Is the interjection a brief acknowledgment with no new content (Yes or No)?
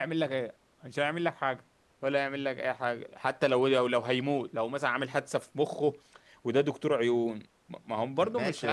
No